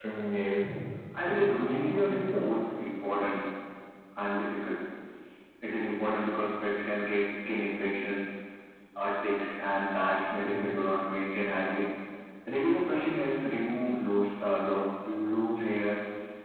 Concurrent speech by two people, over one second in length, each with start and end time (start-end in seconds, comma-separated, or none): 1.2-2.5